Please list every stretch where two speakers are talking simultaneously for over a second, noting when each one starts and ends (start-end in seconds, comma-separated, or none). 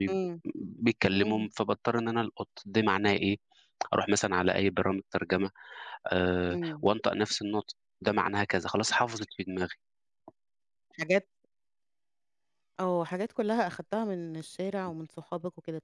none